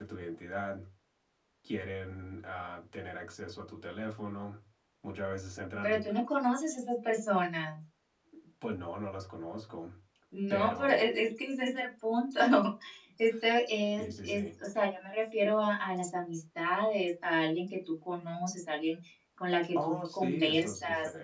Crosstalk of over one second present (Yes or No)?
Yes